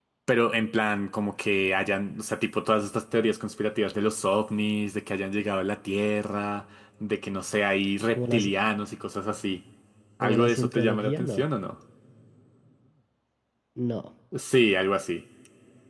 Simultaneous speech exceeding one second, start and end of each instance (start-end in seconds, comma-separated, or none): 10.2-11.4